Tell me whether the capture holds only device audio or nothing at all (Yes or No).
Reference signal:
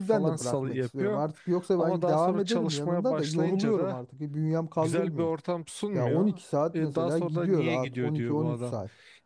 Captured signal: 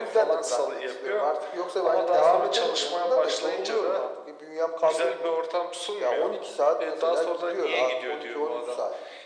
Yes